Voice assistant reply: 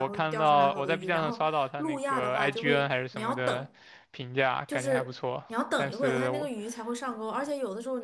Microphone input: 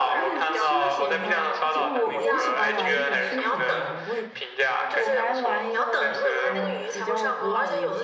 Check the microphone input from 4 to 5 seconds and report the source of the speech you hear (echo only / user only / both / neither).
both